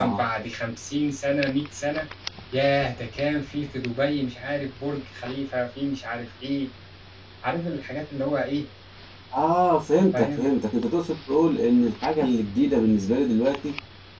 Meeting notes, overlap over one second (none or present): none